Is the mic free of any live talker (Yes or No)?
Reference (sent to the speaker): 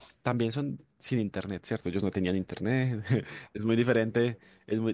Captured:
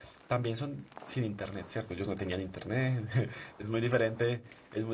Yes